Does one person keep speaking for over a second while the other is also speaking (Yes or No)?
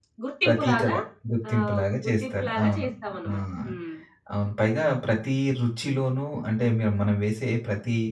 Yes